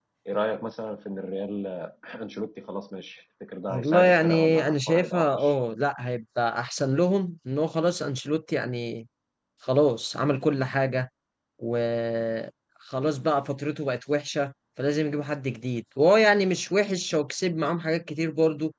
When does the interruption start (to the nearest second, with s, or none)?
4 s